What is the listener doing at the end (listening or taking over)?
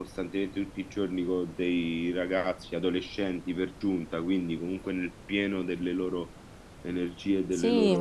taking over